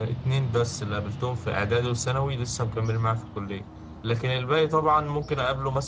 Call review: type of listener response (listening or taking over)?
listening